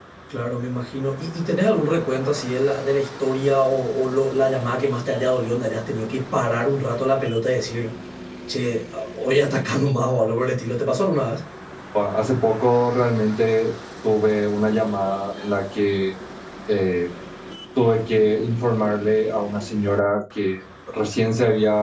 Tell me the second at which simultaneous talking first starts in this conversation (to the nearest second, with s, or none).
none